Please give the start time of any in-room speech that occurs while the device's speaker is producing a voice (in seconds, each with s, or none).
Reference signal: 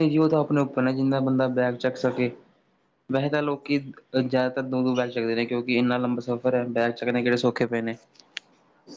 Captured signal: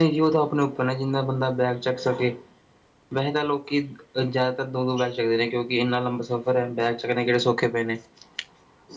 none